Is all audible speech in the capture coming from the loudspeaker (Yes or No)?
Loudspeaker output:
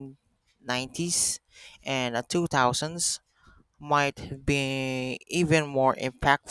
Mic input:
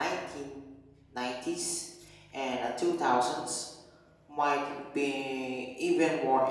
Yes